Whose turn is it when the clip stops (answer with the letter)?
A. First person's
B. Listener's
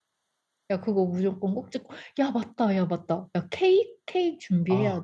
B